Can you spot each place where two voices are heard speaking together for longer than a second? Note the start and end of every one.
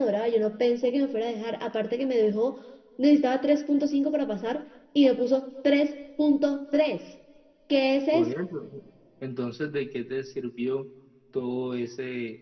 none

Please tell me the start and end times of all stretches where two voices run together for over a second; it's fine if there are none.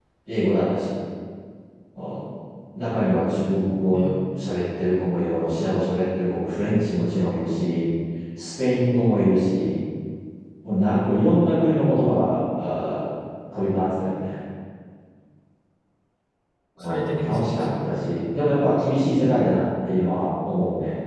16.8-18.1

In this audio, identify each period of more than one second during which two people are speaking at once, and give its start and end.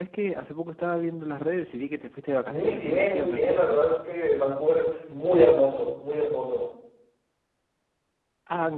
2.5-3.8

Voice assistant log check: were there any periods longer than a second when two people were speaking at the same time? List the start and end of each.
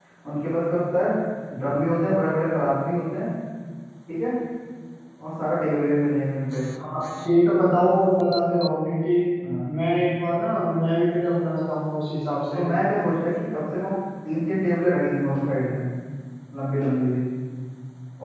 none

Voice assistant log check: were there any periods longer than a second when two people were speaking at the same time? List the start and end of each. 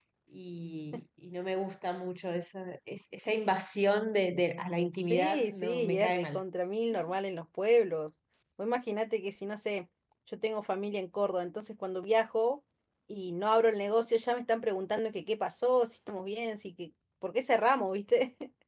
5.0-6.4

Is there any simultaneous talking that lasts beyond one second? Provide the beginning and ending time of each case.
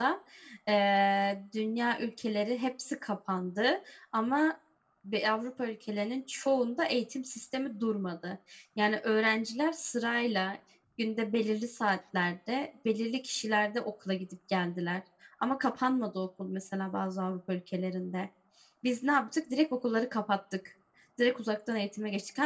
none

